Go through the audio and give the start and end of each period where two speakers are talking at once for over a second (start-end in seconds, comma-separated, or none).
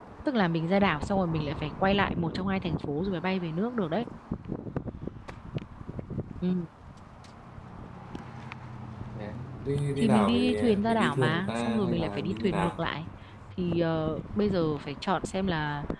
10.0-12.8